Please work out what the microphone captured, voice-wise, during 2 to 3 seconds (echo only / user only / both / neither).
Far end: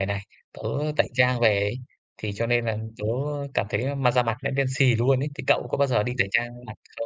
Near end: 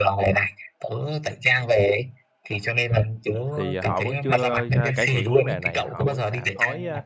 echo only